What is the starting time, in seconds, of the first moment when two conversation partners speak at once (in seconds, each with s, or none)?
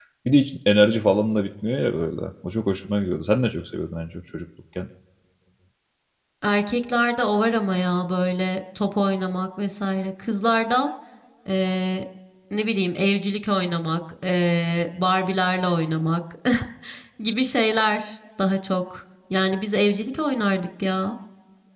none